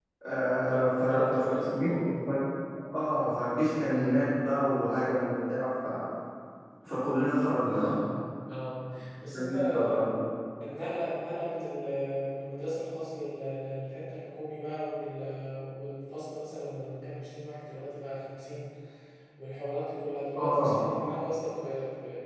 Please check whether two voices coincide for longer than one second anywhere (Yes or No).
Yes